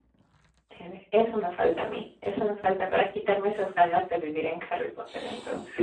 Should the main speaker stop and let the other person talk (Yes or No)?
Yes